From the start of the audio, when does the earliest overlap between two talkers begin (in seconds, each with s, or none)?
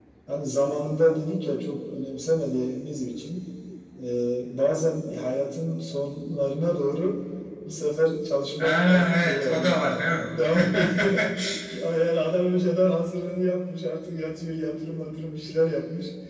8.6 s